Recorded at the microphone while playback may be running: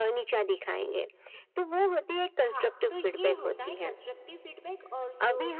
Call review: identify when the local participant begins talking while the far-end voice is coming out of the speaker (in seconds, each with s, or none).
2.4 s